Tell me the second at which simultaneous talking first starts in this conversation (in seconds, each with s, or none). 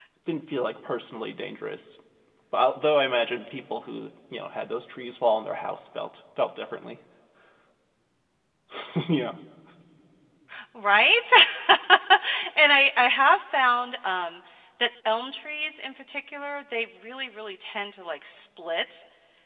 none